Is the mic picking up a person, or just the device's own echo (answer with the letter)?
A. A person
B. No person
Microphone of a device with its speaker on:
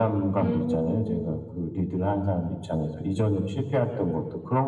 A